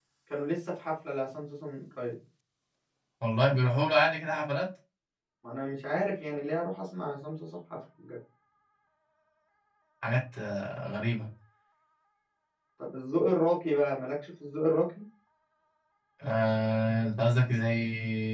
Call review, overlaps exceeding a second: none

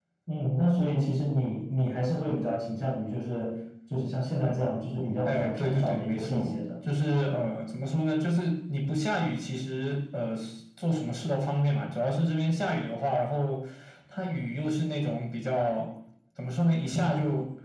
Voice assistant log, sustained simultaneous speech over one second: present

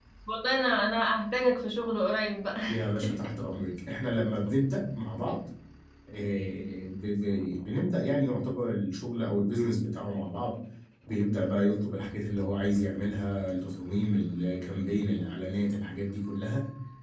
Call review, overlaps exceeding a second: none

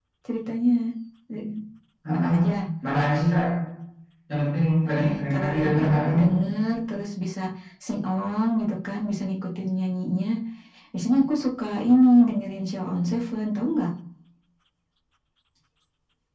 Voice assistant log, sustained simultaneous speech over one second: present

